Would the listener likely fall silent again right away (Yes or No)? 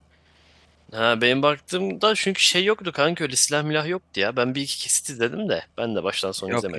No